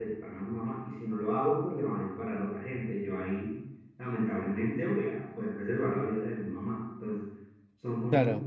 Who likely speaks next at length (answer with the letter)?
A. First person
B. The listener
A